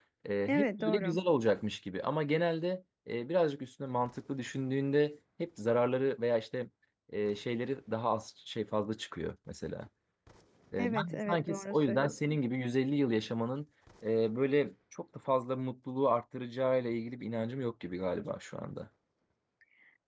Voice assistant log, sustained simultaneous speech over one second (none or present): present